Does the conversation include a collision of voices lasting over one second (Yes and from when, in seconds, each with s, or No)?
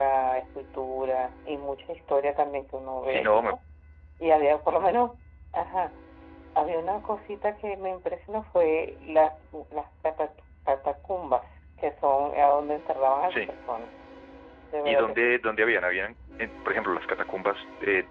No